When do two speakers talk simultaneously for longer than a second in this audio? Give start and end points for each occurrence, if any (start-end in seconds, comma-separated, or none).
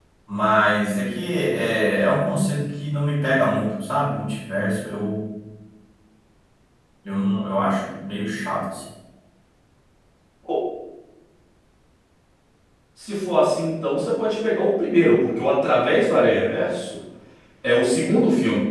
none